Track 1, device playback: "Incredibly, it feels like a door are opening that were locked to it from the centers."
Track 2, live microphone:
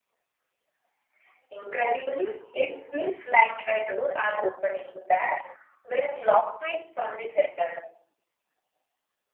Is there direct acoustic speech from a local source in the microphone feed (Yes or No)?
No